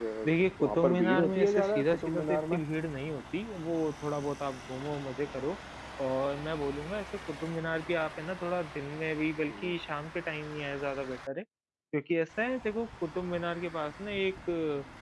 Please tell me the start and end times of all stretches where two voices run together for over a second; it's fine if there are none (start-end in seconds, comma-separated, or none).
0.6-2.6